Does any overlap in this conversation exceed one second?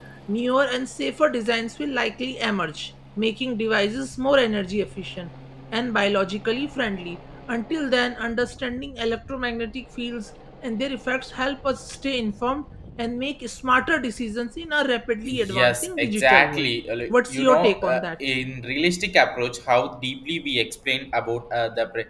Yes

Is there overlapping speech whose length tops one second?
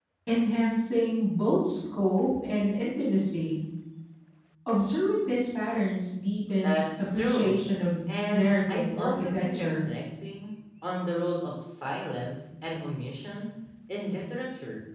Yes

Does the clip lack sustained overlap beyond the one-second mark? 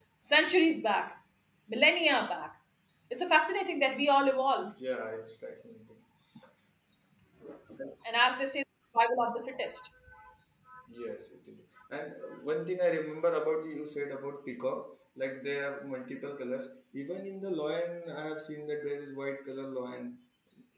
Yes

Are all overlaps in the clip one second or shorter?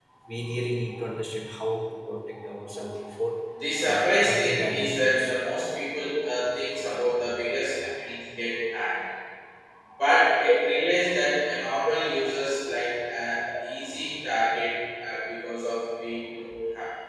No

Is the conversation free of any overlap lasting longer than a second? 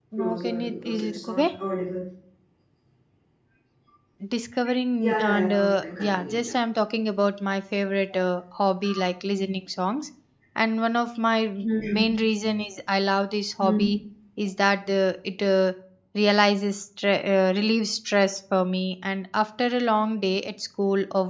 No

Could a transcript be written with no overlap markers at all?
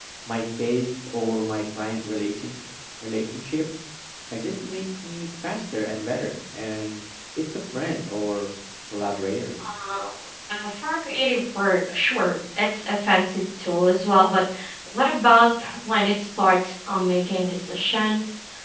Yes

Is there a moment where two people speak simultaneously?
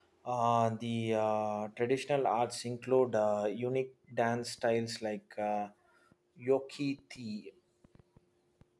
No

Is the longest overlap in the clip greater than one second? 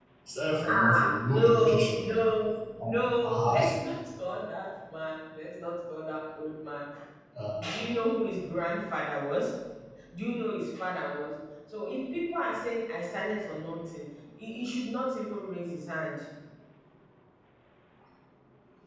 Yes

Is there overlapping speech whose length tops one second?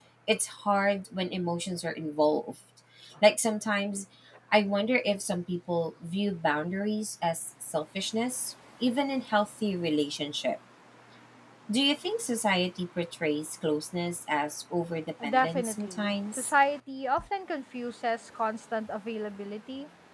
Yes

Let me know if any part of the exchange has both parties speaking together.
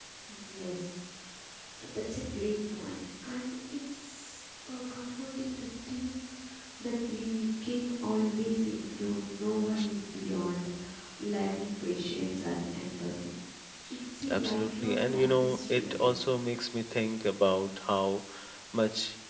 Yes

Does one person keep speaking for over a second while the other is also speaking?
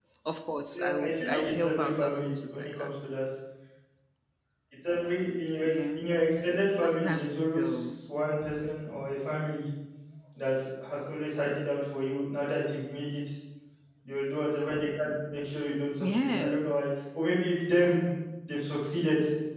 Yes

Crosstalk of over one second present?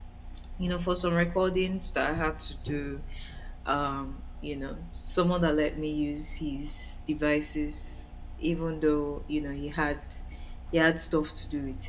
No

